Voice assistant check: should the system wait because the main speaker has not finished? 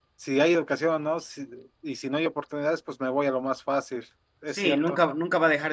No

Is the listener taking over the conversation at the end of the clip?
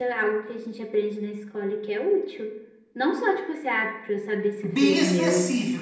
Yes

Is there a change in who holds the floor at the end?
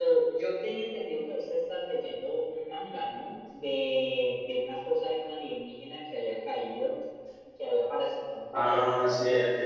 Yes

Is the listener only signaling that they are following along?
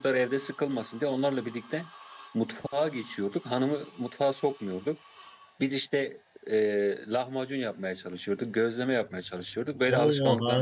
No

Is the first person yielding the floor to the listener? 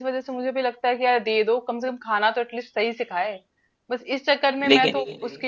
No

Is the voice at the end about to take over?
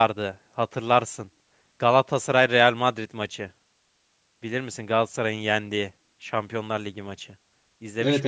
Yes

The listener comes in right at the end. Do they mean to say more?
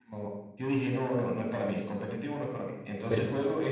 No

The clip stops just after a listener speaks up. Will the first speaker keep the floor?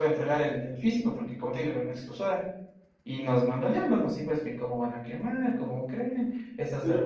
No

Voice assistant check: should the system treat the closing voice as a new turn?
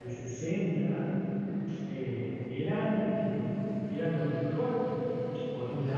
No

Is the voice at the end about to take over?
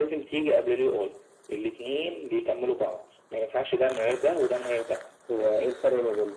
Yes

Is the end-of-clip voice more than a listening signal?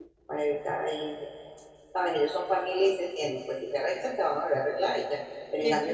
No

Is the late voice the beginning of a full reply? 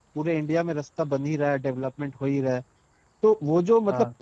No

